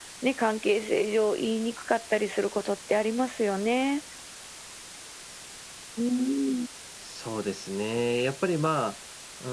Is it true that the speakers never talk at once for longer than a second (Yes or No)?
Yes